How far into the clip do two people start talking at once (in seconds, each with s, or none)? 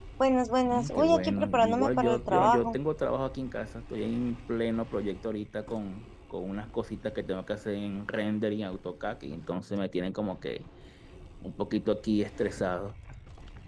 0.7 s